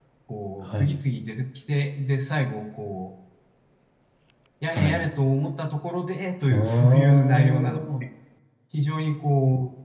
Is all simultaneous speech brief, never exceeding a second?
No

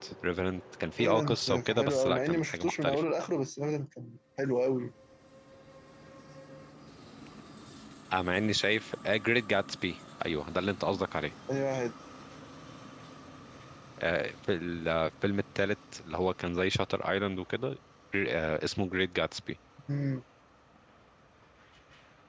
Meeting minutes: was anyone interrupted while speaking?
Yes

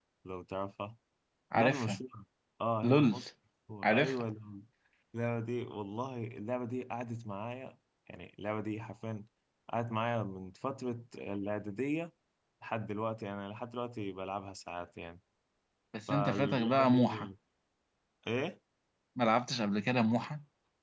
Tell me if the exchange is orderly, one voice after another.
No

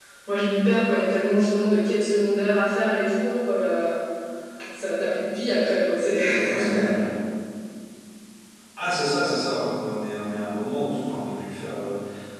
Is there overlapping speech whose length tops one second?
No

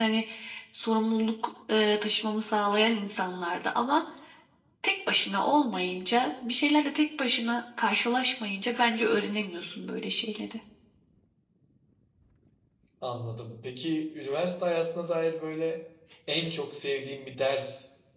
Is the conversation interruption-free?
Yes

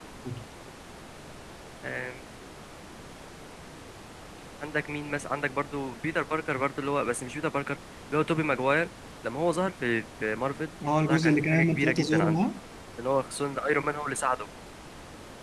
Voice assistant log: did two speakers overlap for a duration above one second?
Yes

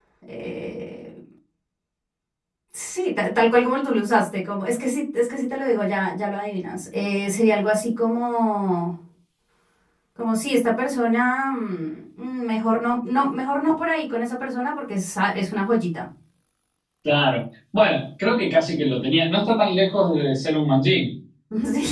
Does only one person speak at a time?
Yes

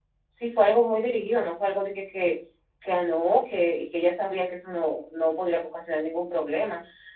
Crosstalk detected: No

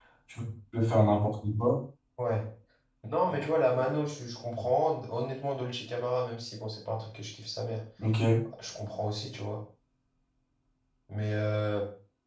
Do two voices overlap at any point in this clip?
No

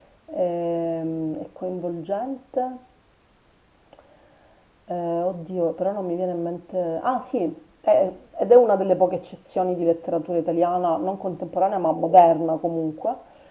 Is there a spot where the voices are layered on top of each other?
No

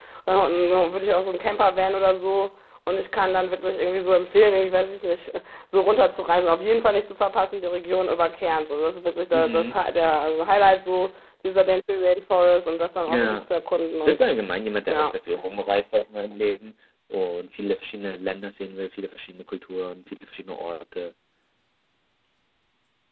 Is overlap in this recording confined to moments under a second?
Yes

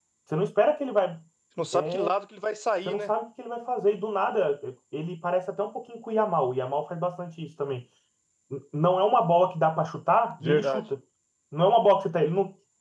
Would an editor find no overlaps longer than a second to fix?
Yes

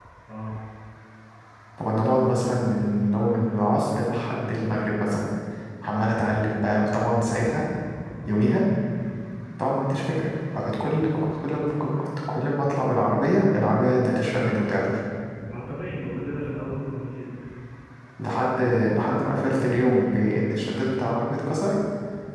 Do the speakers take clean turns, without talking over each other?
Yes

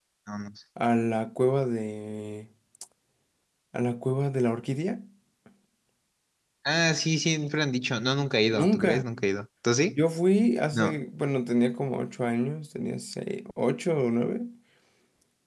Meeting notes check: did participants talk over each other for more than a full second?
No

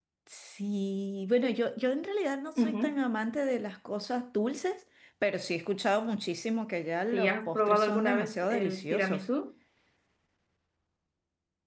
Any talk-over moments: Yes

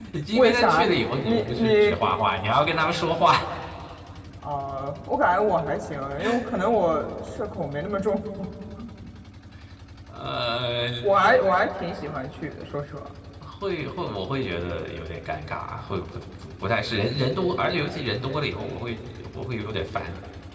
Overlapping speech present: Yes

